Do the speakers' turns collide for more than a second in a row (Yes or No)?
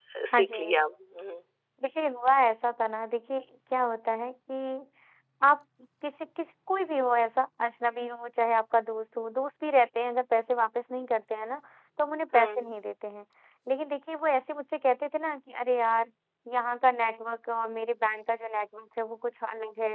No